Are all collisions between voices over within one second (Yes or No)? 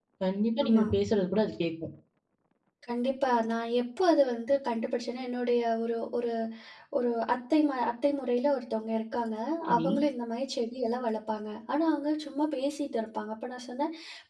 Yes